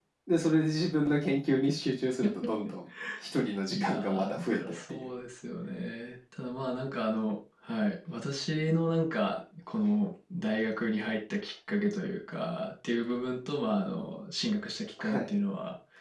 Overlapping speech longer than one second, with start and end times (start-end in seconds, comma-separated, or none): 3.7-5.1